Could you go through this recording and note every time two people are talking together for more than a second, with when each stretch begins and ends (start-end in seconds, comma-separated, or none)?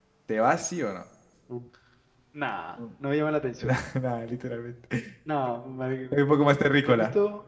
none